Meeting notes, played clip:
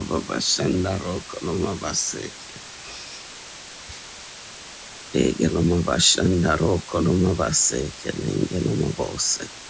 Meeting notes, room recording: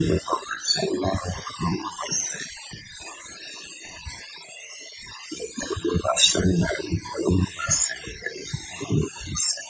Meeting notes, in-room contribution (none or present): none